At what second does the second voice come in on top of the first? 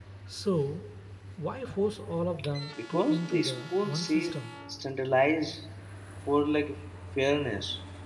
2.8 s

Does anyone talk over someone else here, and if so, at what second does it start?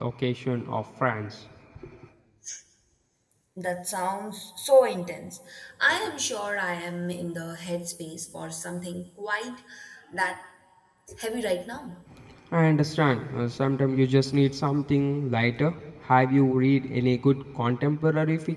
none

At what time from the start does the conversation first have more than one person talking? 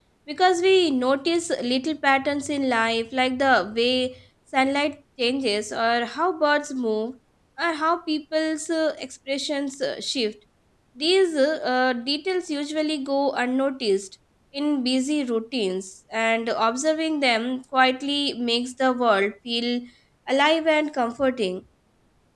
none

